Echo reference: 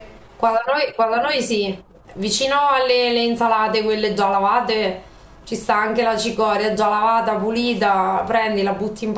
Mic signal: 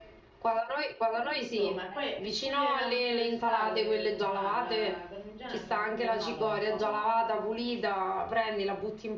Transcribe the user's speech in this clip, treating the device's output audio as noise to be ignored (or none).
insomma, e Eh, poi Eh, è pure una rottura di scatole cucinarla, la parmigiana ci vuole una giornata per farla,